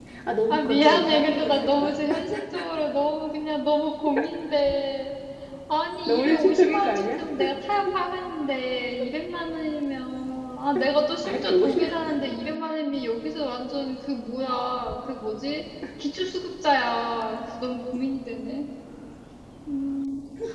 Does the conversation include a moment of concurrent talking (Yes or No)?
Yes